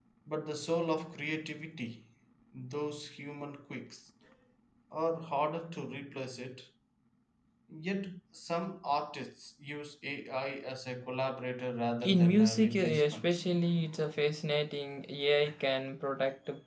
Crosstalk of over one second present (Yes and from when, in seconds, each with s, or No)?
Yes, from 12.0 s